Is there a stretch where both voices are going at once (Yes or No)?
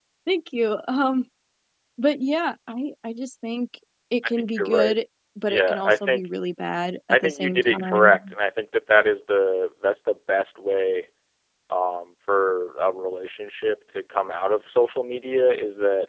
Yes